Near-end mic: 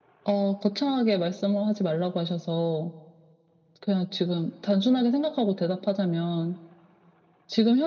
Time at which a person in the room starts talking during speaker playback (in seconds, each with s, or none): none